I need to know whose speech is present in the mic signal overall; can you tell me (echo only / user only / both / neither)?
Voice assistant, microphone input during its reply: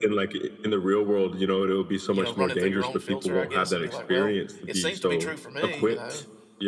both